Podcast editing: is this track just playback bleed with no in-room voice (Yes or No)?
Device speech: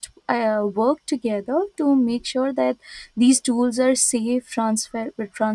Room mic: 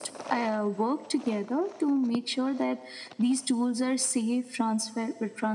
Yes